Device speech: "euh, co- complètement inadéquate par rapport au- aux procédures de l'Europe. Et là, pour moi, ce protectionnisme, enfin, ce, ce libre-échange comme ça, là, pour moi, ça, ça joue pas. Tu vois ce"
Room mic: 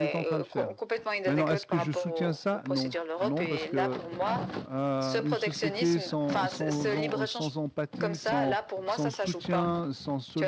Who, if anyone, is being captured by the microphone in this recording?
both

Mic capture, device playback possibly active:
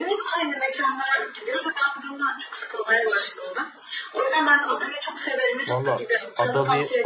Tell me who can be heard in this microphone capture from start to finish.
both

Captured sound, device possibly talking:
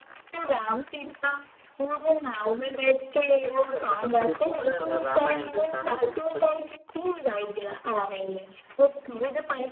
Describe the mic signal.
both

